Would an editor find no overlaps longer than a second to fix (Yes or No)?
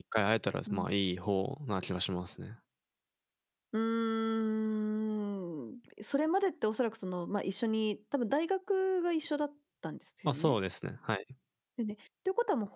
Yes